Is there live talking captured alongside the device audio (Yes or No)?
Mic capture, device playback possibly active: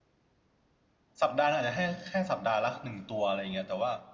Yes